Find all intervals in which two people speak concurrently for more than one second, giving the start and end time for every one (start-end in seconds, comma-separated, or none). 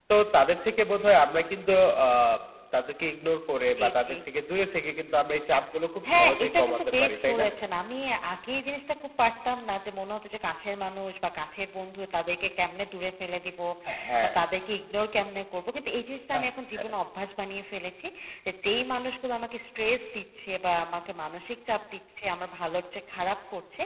6.1-7.5